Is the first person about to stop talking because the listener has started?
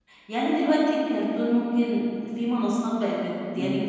No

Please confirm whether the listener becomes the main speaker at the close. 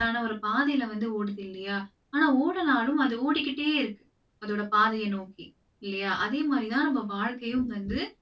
No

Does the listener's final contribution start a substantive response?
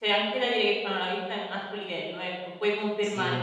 Yes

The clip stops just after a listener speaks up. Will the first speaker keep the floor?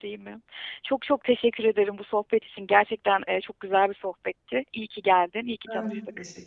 No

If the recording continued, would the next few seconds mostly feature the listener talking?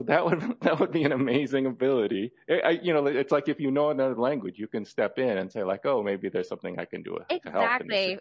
Yes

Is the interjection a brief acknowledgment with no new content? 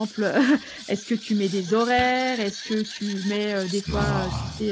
Yes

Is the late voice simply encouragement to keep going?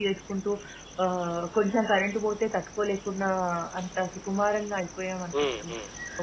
Yes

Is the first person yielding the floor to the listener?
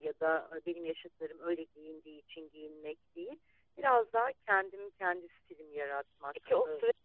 Yes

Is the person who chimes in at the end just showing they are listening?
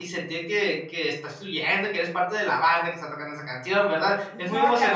No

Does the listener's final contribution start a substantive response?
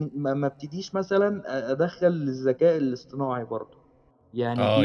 Yes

